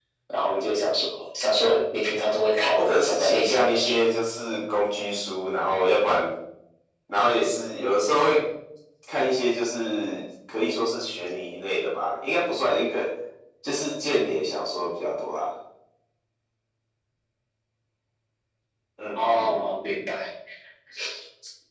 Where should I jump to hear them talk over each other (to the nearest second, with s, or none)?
3 s